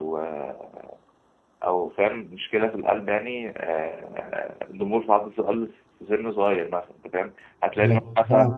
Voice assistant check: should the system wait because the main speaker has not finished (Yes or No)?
Yes